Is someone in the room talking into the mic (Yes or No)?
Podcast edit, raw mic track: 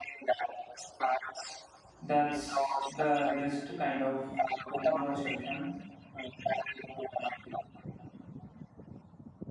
Yes